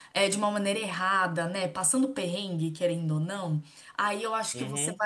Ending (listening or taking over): listening